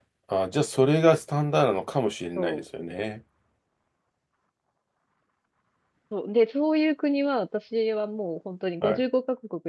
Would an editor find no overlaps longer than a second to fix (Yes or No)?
Yes